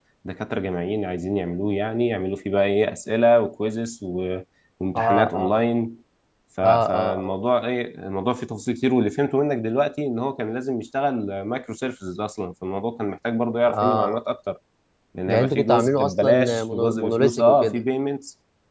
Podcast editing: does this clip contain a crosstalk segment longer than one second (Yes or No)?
Yes